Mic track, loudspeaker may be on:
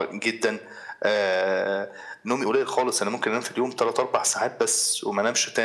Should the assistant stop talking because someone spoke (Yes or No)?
No